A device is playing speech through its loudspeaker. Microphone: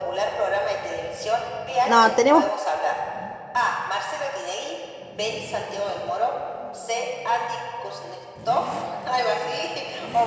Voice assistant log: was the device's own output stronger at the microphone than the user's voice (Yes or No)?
No